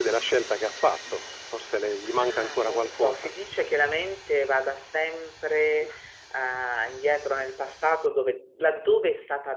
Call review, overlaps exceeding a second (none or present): present